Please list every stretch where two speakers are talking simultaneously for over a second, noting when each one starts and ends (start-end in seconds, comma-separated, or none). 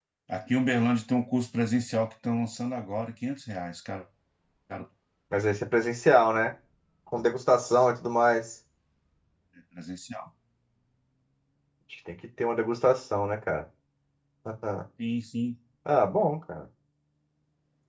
none